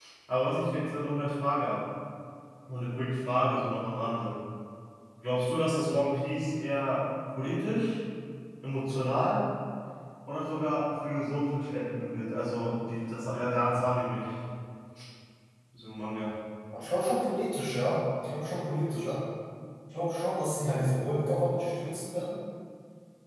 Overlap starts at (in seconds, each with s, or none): none